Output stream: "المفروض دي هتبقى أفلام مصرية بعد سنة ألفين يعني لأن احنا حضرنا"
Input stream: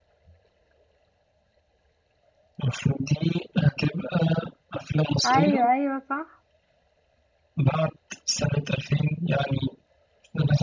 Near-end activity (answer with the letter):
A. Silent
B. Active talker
B